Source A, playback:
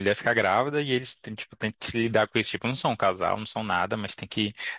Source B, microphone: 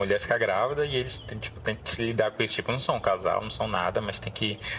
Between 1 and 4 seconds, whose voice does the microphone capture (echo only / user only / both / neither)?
echo only